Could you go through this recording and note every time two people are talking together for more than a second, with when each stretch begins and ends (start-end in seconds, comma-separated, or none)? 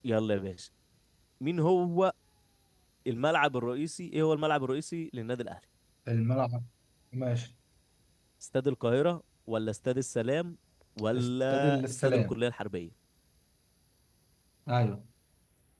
11.1-12.4